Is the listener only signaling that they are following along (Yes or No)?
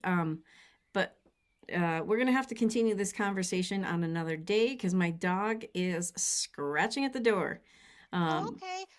No